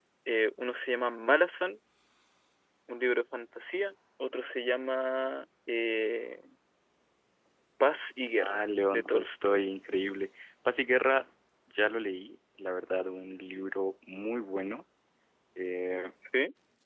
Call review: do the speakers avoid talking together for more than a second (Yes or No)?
No